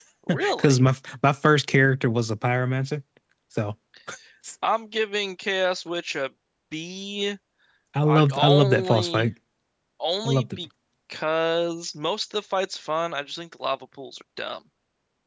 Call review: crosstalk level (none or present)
present